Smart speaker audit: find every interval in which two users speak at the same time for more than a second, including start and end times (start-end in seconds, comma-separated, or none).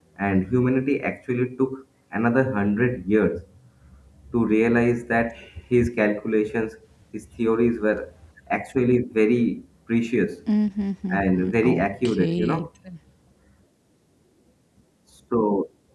11.1-12.7